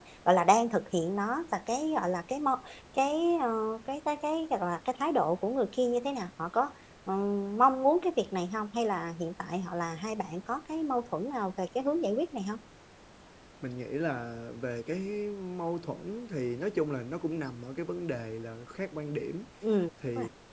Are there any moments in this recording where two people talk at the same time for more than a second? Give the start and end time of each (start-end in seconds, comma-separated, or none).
none